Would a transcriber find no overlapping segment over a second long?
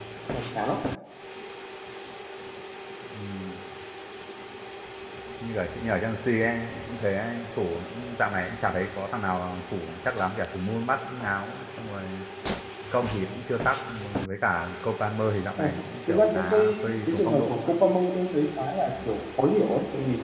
No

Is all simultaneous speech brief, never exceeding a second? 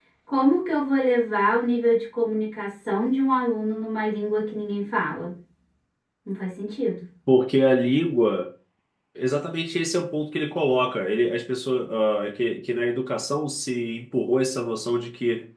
Yes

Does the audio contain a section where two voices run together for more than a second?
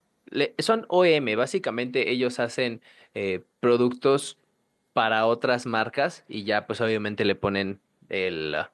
No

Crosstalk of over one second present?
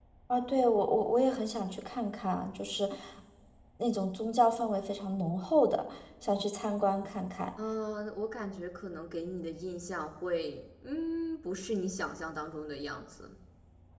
No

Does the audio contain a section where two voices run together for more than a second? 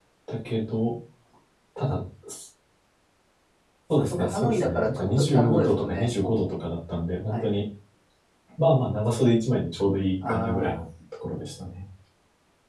Yes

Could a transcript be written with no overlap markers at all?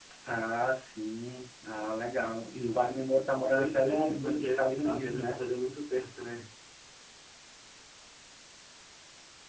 No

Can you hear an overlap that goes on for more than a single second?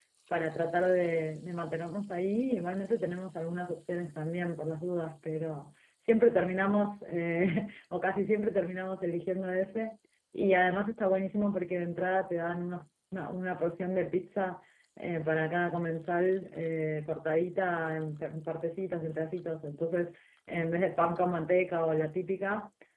No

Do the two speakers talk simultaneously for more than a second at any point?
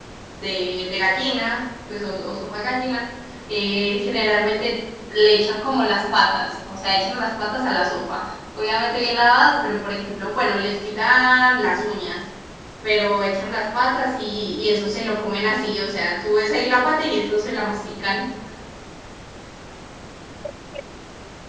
No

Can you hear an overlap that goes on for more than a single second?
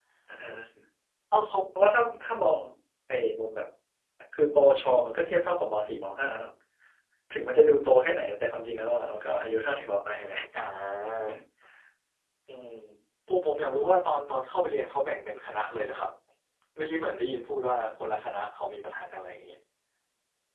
No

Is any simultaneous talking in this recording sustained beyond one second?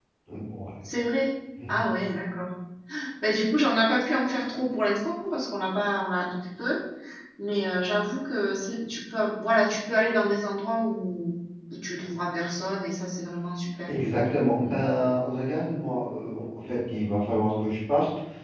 No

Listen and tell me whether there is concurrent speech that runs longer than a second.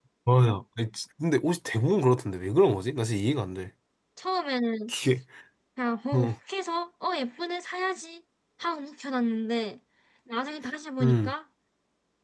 No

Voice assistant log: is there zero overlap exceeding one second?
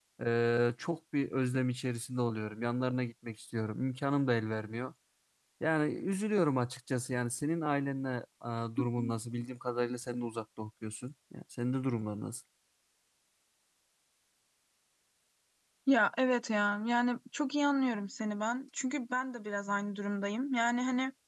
Yes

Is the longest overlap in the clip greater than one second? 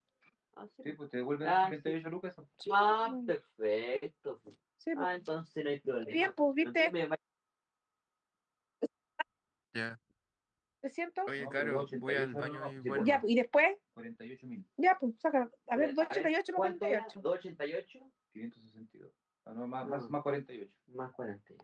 Yes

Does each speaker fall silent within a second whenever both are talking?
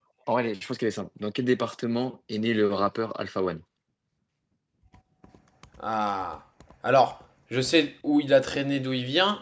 Yes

